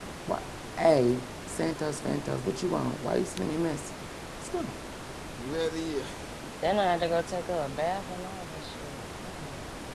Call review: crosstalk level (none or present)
none